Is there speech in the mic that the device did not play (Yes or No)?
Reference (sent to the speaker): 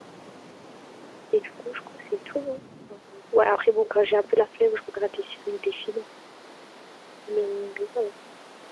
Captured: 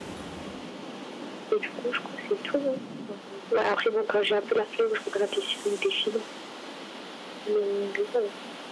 No